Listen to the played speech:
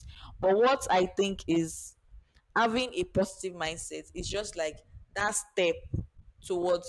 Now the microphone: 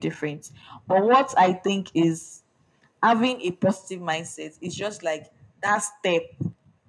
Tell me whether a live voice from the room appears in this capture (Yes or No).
No